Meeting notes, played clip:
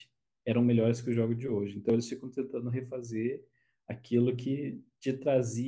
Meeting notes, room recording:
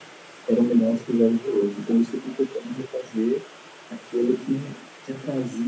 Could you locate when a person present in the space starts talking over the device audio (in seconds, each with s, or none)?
none